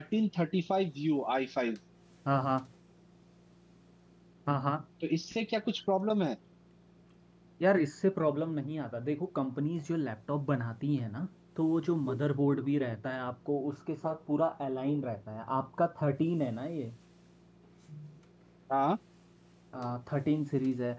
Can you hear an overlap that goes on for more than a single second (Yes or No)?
No